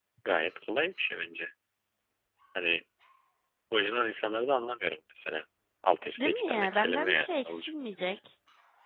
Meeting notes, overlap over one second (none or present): present